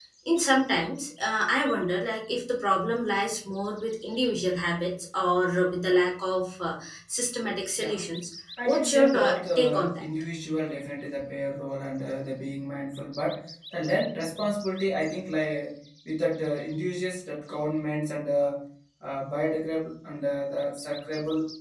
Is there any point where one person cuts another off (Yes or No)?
Yes